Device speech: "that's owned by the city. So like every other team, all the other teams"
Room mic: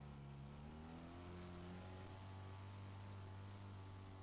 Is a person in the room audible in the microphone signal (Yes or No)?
No